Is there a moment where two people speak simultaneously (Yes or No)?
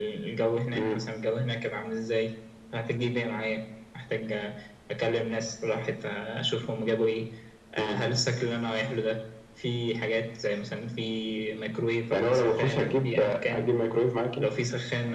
Yes